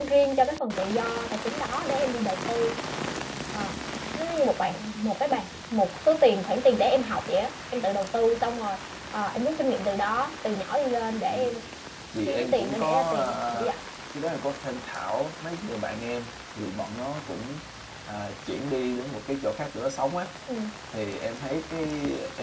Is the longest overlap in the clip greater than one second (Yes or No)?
Yes